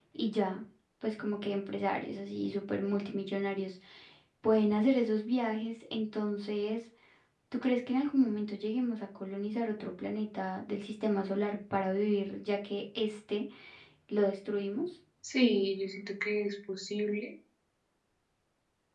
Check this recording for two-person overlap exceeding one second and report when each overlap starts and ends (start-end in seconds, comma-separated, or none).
none